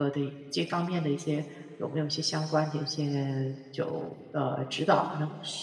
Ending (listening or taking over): taking over